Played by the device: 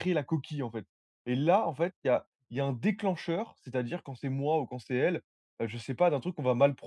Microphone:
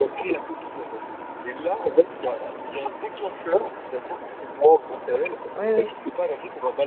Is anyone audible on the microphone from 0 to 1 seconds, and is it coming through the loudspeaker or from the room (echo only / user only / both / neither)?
echo only